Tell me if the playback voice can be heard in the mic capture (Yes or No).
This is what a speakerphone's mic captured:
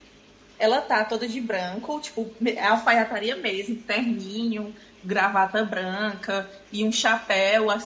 No